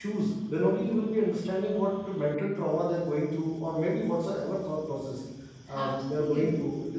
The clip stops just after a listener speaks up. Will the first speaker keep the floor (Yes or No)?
Yes